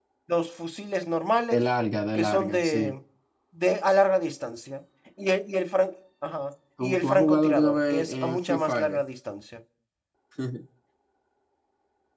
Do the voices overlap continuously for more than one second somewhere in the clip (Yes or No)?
Yes